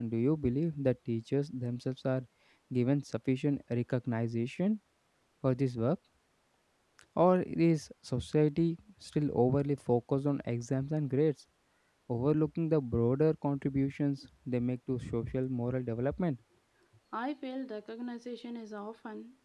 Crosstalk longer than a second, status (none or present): none